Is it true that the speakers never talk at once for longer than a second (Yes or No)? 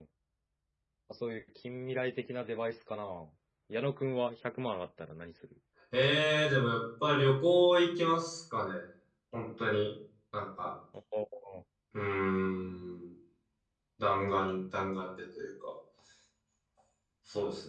Yes